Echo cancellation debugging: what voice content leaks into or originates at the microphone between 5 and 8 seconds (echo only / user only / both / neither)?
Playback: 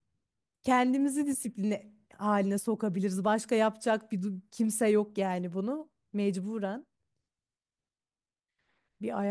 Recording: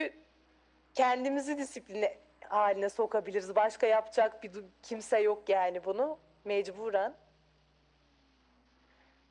echo only